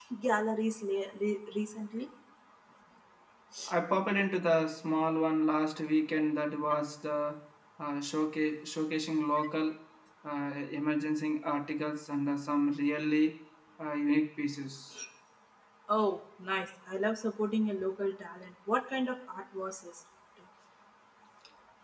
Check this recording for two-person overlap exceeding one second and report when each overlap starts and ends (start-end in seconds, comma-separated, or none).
none